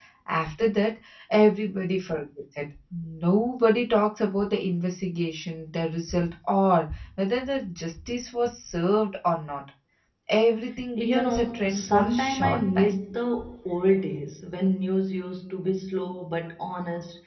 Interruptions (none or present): present